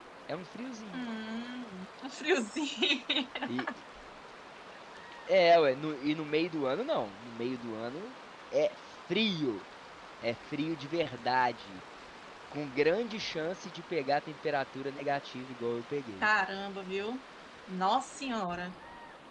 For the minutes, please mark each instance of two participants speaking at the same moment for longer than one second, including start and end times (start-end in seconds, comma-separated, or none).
none